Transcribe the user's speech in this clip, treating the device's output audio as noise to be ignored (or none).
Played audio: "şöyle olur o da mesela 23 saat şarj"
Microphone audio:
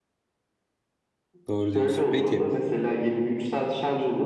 doğru diyorsun. Peki